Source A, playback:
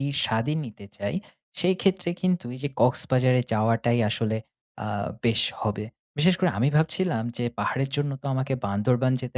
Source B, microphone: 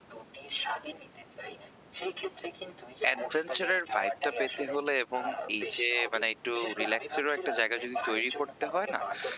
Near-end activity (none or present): present